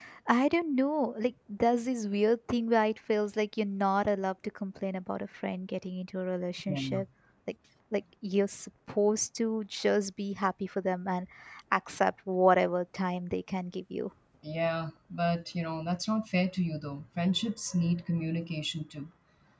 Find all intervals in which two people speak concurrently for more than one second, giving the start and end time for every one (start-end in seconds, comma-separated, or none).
none